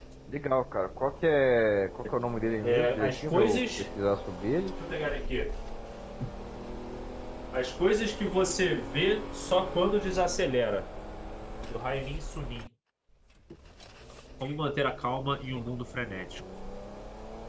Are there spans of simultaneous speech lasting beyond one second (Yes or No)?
Yes